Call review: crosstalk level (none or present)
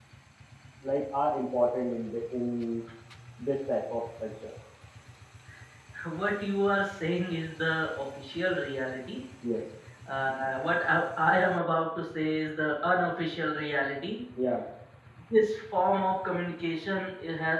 none